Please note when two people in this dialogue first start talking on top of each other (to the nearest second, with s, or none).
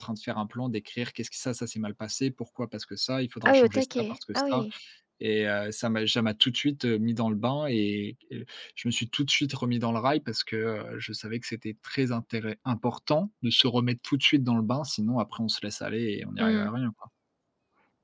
3 s